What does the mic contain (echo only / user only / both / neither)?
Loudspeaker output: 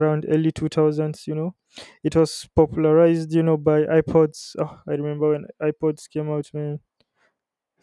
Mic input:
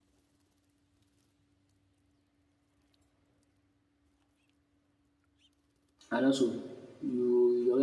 user only